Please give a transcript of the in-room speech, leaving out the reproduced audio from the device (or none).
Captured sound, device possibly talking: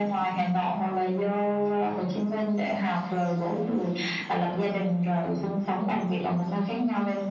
none